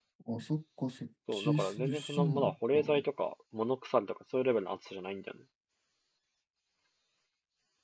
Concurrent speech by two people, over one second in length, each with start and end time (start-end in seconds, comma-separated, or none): 1.3-3.0